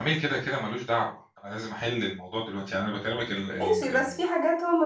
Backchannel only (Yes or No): No